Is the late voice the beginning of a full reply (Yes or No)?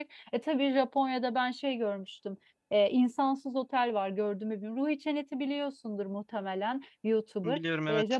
No